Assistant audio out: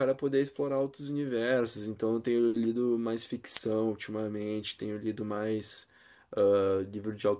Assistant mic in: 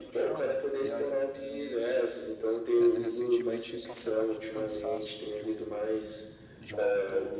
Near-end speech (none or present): present